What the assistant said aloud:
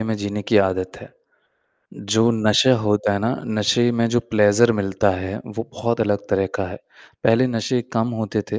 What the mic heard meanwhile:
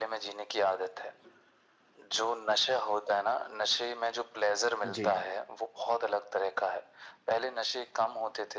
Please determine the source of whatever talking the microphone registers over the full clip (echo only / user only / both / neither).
both